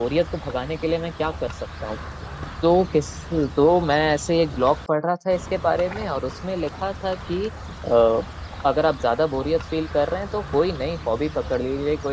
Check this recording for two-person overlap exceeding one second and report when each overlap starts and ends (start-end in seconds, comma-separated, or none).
none